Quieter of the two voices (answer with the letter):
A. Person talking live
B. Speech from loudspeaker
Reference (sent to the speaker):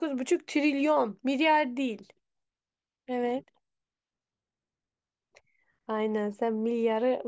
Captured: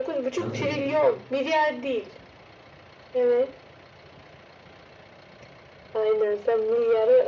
A